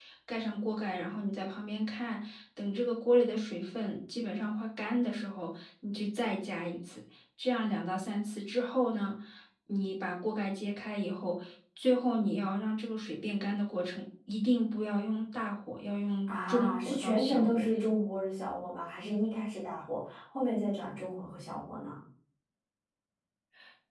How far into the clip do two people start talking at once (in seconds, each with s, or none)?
16.3 s